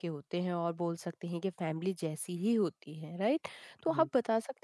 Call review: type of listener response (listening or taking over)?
listening